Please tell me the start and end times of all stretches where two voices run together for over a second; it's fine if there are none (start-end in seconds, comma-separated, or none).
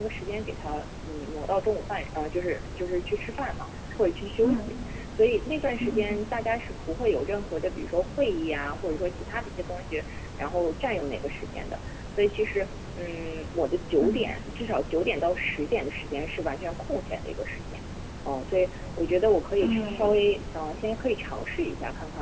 none